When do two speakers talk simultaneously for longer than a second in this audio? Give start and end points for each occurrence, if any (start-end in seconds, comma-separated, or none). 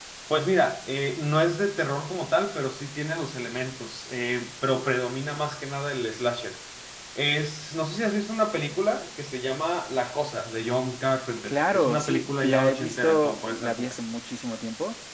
11.5-14.0